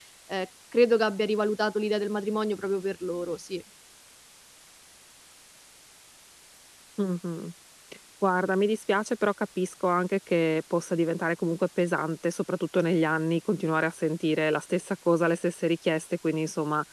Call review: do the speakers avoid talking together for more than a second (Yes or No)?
Yes